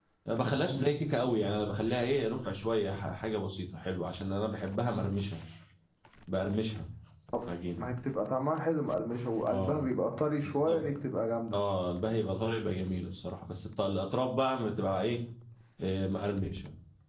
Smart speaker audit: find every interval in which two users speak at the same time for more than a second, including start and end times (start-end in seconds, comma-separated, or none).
none